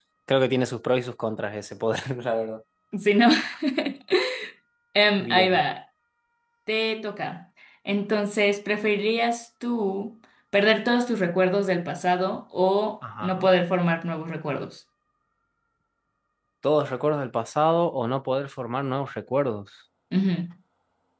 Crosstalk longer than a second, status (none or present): none